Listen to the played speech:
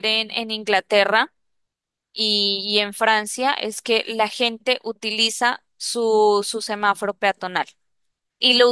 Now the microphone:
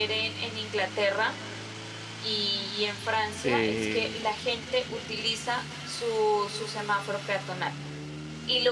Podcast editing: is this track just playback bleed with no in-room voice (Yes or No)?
No